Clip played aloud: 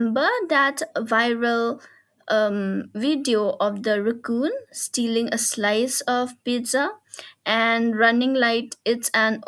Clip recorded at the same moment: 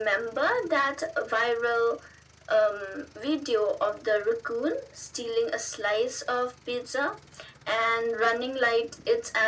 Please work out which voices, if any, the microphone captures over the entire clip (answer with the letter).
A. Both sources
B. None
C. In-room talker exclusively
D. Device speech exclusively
D